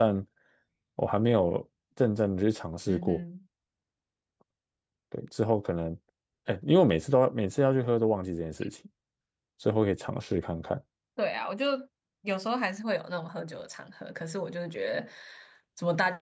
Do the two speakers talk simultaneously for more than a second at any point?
No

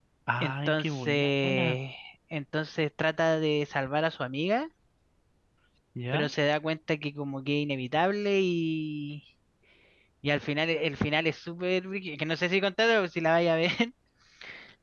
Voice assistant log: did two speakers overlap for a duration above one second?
Yes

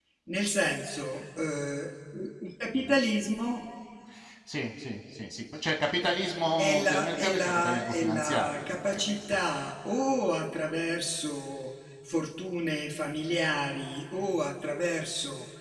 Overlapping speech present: Yes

